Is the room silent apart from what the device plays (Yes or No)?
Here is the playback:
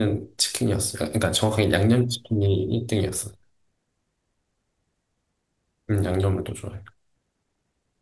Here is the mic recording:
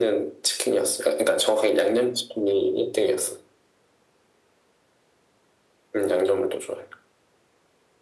Yes